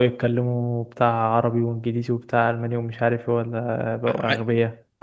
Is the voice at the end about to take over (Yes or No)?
Yes